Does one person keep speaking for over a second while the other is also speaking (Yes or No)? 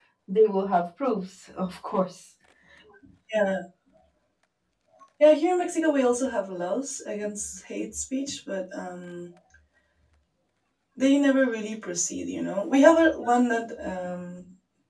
No